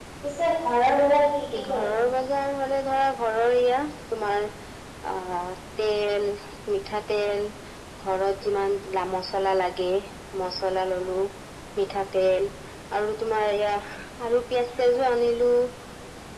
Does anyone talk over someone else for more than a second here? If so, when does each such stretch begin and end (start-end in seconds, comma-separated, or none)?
none